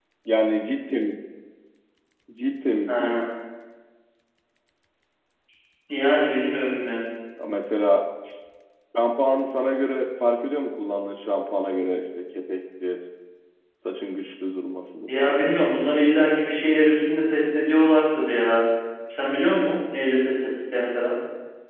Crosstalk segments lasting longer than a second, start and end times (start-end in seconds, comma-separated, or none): none